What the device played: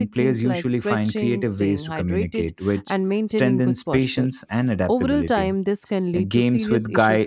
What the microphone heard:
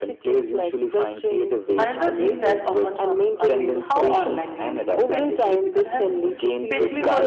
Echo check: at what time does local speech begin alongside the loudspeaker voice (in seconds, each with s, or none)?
1.8 s